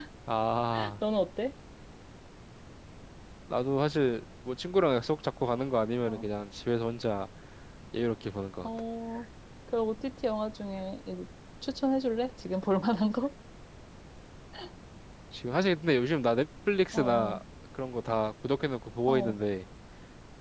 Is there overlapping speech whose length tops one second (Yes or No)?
No